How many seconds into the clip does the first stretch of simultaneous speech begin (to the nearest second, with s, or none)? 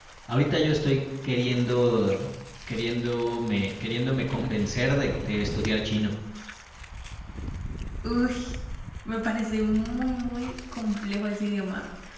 none